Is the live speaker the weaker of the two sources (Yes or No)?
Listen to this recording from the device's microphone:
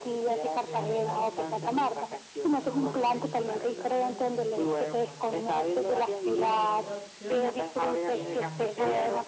Yes